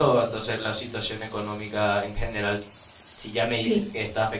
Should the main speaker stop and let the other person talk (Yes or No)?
No